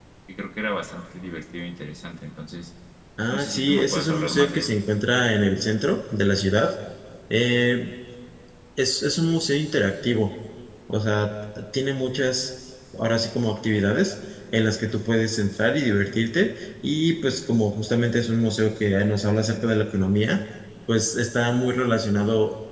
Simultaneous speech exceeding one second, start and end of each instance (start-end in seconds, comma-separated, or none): 3.3-4.7